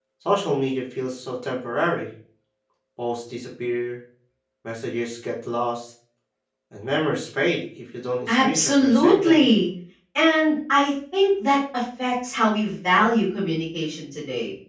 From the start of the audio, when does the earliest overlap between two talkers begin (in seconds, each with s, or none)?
8.3 s